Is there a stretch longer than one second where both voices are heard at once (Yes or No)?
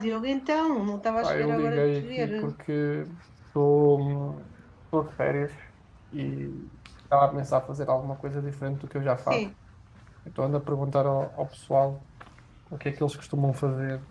Yes